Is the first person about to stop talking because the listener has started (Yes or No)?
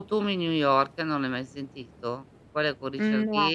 No